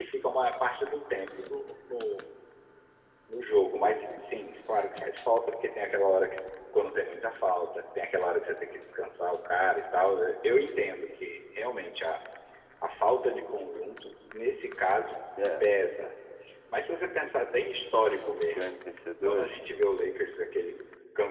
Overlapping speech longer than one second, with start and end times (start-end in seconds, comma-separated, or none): none